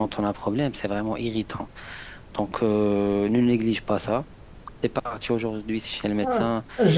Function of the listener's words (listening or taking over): taking over